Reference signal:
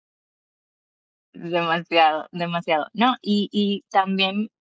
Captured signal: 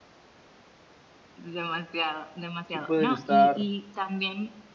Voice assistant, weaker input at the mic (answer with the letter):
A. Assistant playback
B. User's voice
A